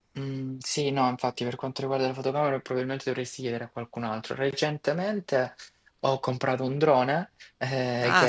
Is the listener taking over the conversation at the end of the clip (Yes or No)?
No